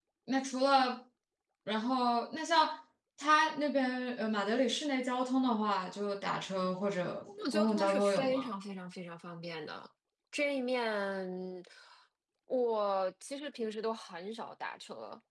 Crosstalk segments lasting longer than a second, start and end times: 7.3-8.5

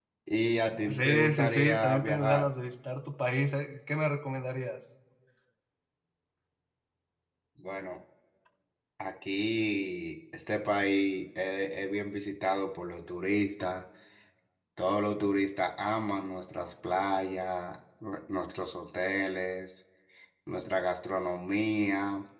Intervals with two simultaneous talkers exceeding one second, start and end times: 0.9-2.5

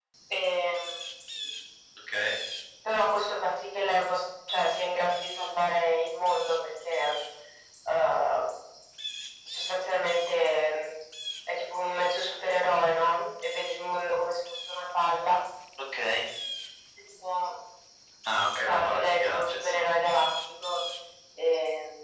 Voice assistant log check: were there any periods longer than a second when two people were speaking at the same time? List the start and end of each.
18.6-19.9

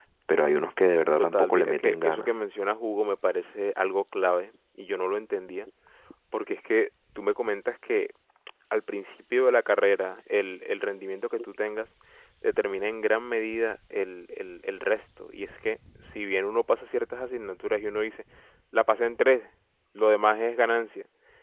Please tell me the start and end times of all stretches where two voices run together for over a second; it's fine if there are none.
1.2-2.4

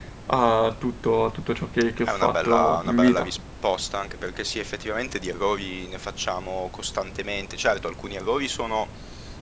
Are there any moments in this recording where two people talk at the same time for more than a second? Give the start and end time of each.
2.0-3.3

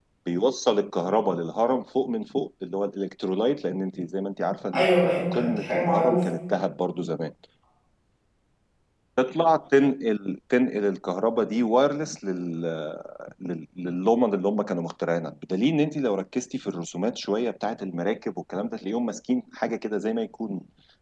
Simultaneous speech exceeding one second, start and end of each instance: 4.7-6.2

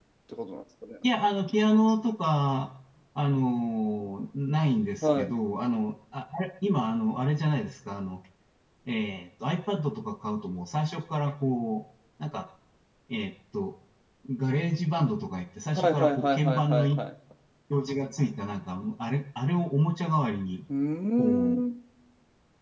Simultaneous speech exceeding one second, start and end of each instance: 15.8-17.0

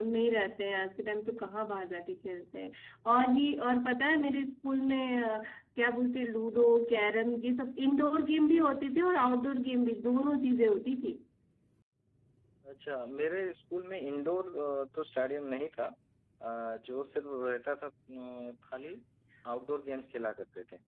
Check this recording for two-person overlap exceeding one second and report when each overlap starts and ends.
none

